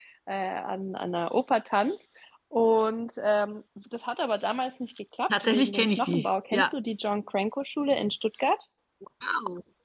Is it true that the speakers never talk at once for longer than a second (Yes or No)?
No